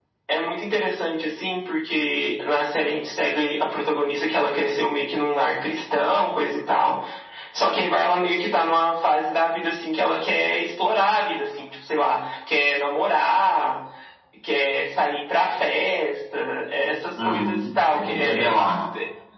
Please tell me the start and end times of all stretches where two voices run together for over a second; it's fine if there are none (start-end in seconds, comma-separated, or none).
17.2-18.5